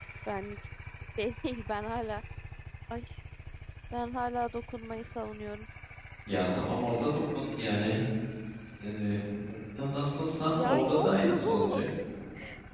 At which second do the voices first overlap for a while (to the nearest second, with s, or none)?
11 s